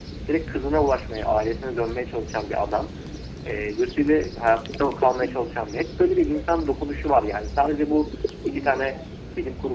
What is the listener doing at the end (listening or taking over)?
listening